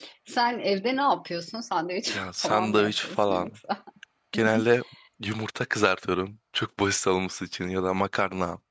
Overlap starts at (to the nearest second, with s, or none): 2 s